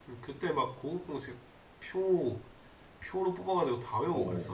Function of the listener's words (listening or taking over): taking over